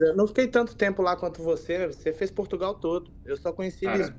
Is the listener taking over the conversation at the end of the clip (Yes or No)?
No